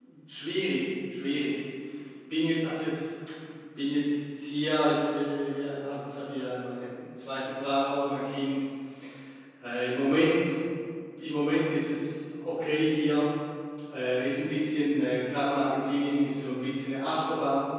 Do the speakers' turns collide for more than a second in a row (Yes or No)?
No